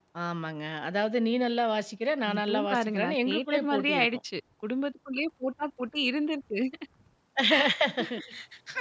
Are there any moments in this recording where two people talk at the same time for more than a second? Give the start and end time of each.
2.4-4.1

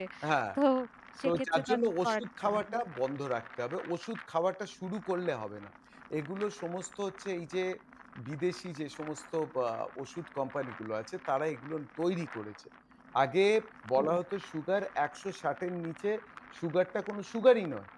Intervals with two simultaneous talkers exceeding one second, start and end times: 1.2-2.8

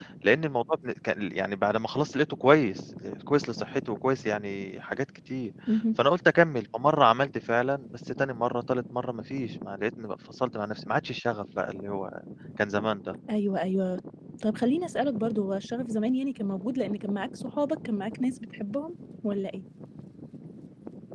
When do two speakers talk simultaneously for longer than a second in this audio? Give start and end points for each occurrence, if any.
none

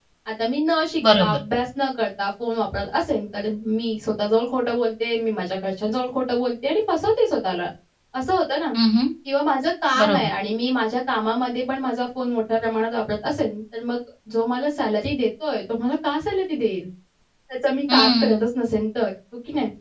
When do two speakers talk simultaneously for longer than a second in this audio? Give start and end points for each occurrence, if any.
none

